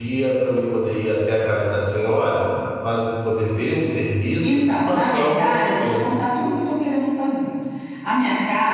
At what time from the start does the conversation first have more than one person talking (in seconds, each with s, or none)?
4.4 s